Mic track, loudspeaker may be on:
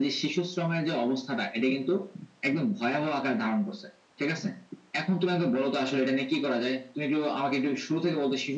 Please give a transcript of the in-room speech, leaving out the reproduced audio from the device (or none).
none